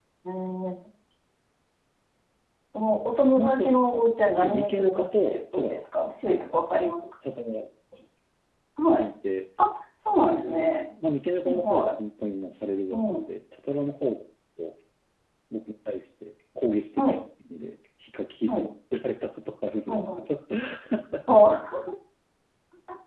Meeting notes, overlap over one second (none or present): present